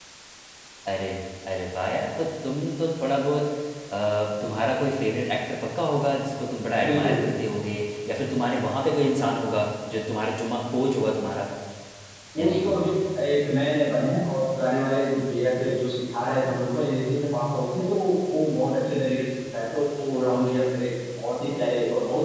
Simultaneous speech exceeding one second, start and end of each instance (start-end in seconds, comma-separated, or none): none